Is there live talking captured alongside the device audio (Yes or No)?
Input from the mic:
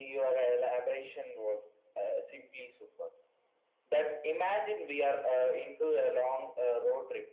No